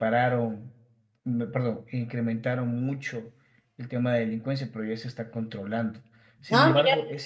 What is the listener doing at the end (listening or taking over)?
listening